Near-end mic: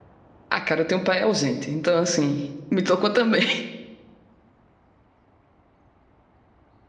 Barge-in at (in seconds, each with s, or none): 0.5 s